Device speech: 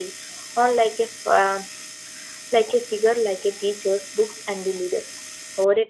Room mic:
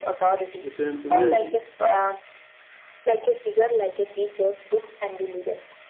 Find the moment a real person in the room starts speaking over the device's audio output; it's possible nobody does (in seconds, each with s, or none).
0.6 s